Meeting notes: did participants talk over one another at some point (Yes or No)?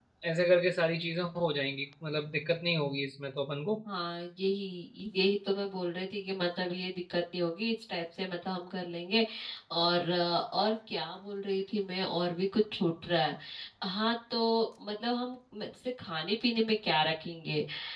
No